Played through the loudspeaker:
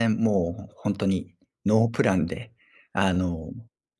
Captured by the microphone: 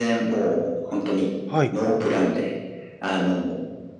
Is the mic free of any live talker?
No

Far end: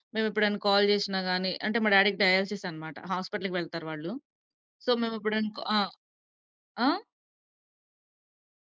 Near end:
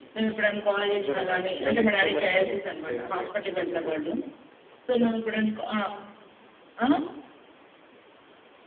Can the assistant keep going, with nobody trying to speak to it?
No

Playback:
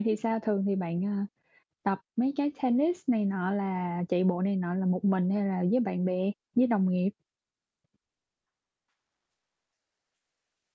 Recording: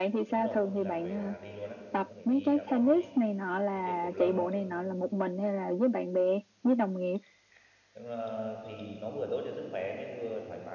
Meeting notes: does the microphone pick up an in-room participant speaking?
Yes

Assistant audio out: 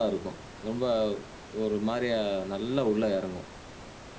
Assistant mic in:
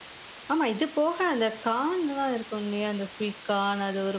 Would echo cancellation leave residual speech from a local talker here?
Yes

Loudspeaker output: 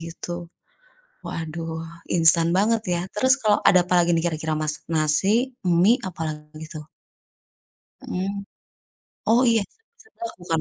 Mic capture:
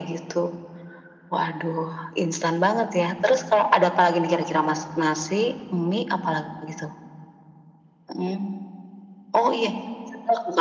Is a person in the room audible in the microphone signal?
No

